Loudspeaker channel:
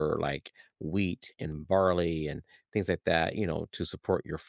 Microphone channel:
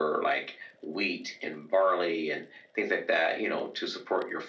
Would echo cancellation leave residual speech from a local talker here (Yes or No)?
No